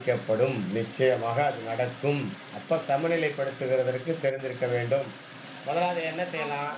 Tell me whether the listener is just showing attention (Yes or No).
No